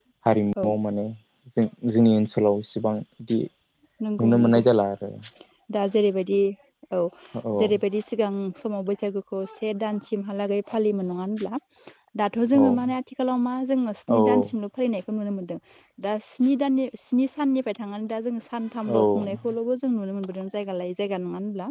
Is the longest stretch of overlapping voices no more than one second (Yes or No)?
Yes